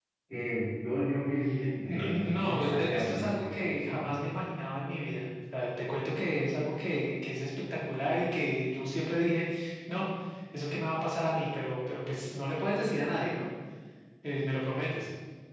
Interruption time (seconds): 1.8 s

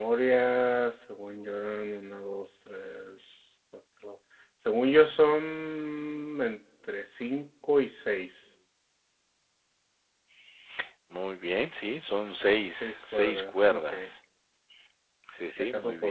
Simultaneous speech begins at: 12.8 s

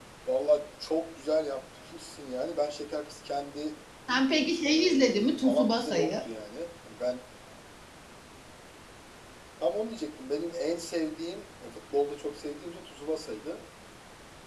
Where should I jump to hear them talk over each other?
4.6 s

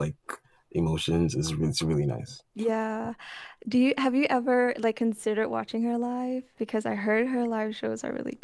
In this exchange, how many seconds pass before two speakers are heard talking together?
none

